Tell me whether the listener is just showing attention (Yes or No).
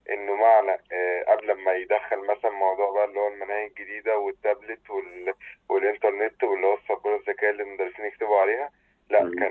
Yes